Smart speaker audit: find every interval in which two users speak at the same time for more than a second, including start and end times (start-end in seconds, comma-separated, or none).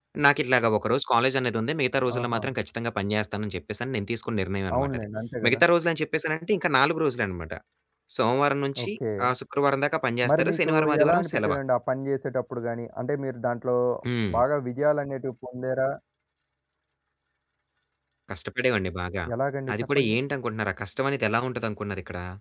10.3-11.5